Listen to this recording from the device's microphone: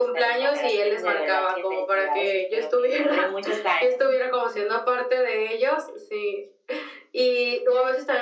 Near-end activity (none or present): none